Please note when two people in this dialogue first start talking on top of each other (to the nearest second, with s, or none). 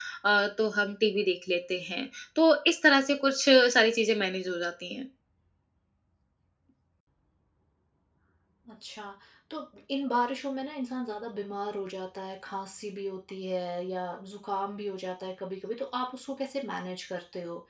none